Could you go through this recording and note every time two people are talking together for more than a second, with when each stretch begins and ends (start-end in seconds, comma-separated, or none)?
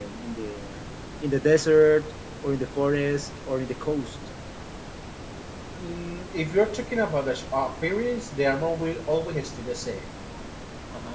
none